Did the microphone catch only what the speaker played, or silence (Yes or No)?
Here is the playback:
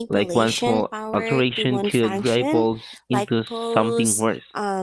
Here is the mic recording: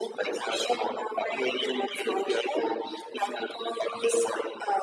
Yes